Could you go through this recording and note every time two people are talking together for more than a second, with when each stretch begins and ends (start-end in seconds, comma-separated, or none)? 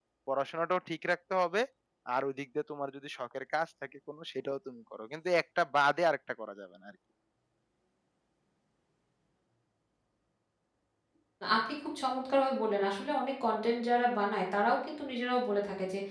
none